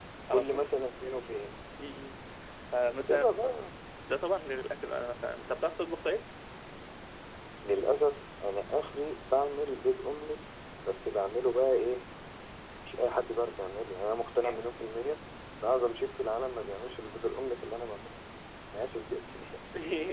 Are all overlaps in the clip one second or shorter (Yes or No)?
Yes